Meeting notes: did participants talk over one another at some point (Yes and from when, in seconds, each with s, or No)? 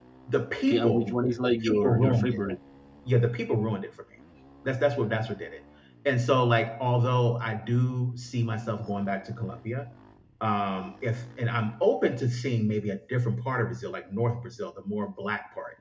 Yes, from 0.7 s